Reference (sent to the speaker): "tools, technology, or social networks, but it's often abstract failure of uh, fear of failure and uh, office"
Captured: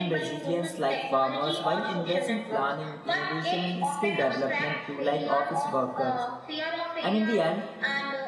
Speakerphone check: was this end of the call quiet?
No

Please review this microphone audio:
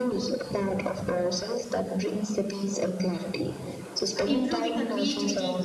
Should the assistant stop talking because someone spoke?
Yes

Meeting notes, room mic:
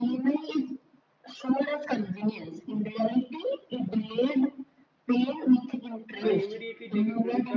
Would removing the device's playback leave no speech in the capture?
No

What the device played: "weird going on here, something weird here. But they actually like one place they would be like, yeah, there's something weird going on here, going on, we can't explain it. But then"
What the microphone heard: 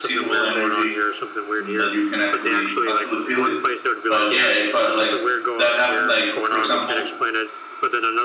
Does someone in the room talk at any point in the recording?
Yes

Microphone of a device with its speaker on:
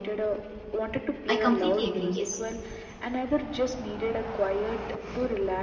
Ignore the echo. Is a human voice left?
Yes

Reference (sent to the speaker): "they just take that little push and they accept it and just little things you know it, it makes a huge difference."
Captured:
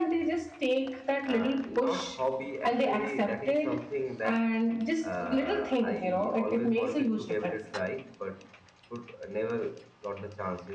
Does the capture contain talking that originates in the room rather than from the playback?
Yes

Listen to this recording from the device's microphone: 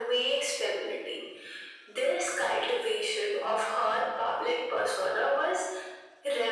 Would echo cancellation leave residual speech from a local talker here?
No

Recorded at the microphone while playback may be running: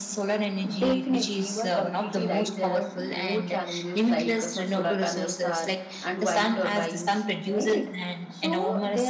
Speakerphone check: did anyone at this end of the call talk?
Yes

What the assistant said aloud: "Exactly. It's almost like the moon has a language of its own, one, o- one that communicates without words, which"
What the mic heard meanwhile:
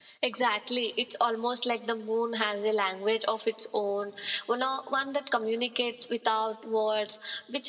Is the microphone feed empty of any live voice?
Yes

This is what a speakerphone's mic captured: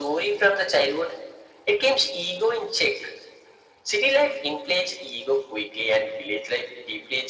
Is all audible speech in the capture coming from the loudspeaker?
Yes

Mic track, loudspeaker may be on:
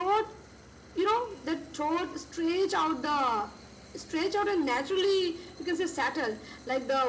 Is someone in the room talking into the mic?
No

